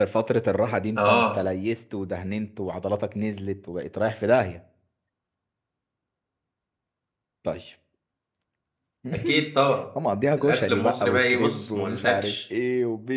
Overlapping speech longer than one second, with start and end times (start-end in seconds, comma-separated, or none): 10.4-12.4